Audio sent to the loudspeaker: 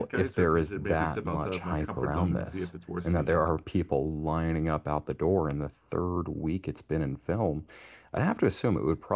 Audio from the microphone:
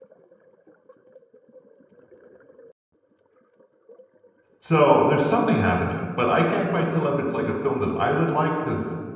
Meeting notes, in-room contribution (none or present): present